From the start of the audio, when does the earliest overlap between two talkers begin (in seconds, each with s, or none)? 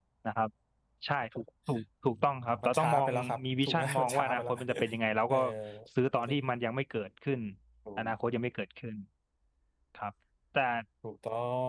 2.6 s